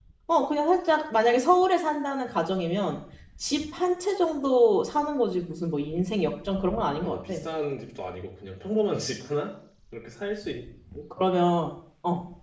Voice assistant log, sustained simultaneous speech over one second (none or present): none